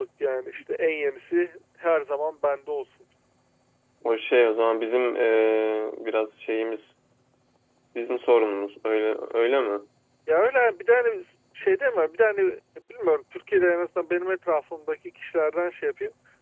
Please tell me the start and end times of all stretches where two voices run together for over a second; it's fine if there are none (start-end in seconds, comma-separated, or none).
none